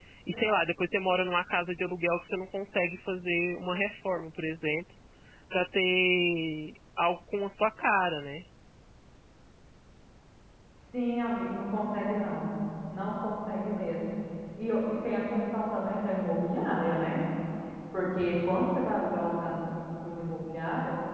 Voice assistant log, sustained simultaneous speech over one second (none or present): none